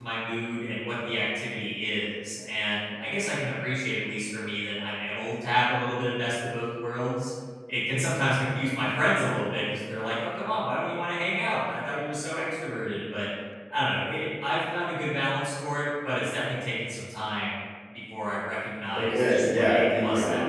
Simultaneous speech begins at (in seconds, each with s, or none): 18.9 s